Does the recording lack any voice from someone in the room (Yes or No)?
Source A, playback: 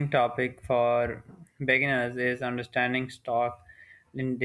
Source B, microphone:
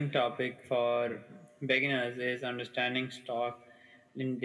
Yes